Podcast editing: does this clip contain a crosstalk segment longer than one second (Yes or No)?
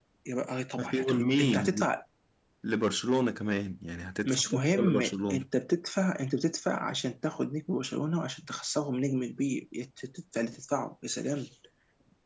Yes